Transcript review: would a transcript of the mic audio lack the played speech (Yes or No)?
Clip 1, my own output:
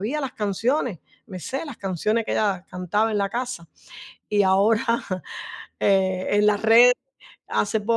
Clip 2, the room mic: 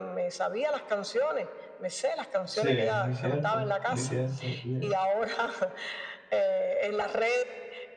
No